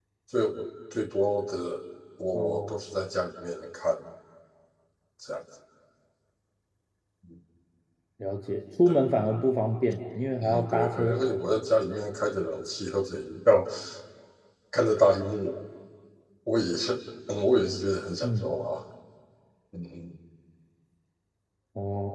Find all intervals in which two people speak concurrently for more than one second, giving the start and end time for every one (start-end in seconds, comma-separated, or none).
10.4-11.7